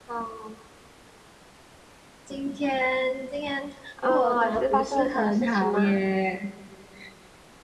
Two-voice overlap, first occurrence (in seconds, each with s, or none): 4.0 s